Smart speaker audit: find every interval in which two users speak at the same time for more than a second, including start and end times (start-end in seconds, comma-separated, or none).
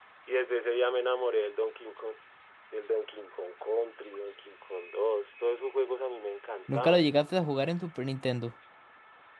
none